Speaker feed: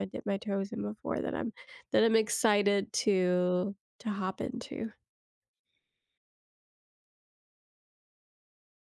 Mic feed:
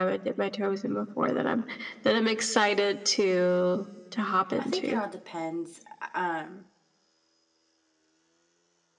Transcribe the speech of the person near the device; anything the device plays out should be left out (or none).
I think it all depends. Um,